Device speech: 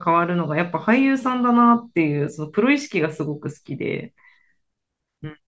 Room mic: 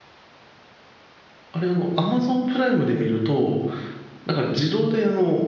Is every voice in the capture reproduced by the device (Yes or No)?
No